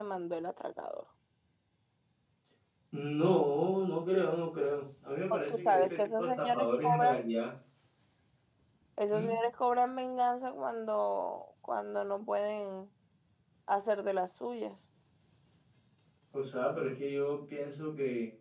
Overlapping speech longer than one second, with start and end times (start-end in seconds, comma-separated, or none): 5.3-7.2